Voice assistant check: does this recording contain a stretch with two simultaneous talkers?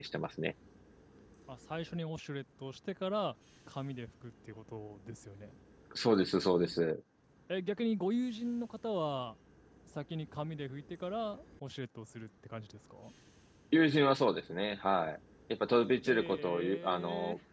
Yes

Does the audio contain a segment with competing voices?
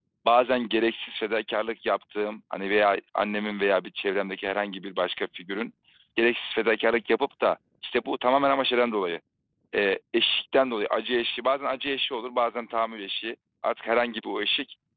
No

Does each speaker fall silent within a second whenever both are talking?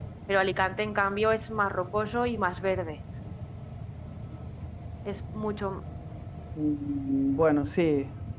Yes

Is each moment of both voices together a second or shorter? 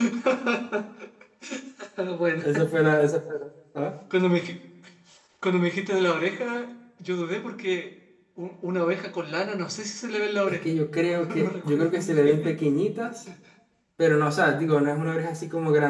No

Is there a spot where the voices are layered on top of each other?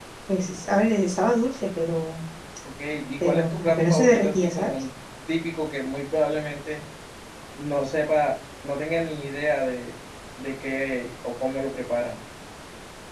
Yes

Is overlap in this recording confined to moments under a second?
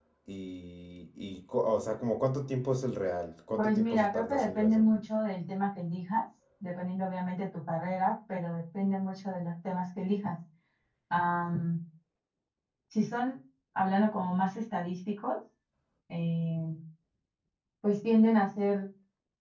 No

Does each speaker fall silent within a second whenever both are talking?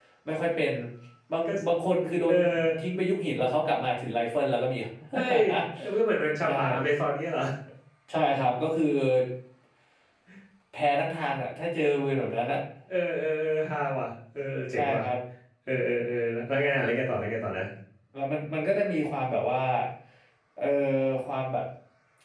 Yes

